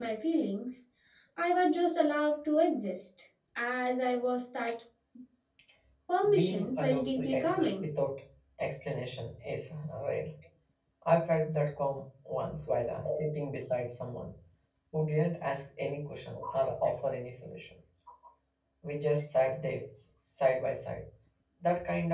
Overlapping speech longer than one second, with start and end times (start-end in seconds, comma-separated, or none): 6.3-7.8